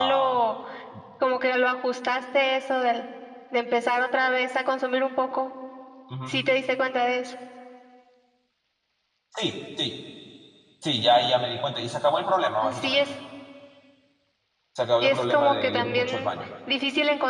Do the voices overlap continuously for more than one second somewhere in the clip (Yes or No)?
Yes